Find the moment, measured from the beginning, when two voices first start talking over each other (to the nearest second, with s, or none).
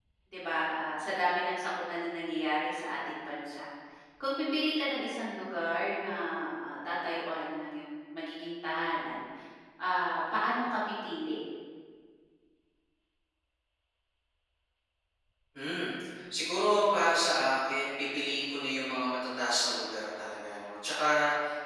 none